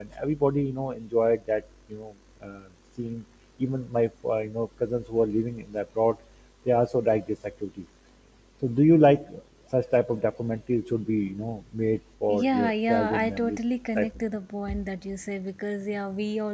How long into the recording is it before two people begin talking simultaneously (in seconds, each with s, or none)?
12.3 s